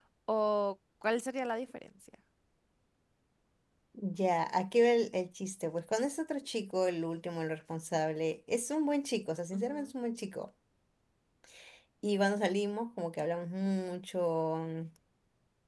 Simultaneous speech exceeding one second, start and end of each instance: none

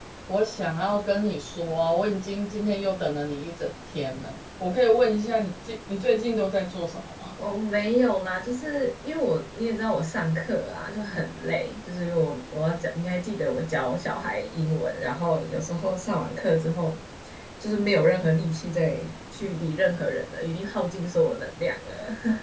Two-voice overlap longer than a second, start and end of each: none

